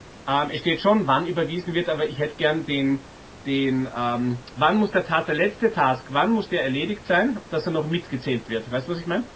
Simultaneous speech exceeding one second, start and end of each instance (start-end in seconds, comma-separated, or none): none